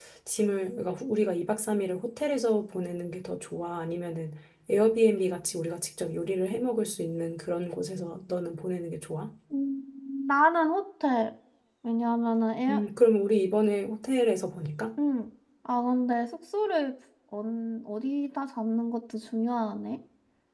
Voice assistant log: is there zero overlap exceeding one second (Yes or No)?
Yes